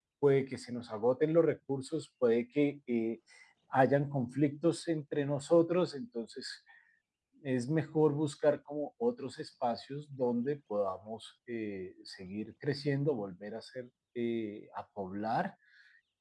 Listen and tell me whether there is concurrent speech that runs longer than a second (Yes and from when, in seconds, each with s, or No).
No